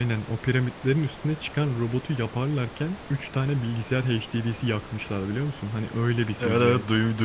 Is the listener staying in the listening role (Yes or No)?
No